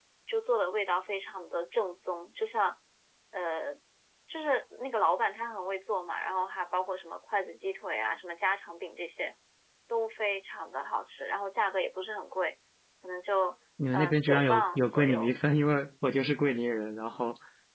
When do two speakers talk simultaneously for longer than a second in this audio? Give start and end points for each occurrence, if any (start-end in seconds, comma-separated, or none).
13.9-15.3